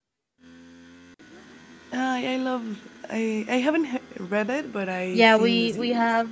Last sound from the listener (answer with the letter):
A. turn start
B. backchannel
A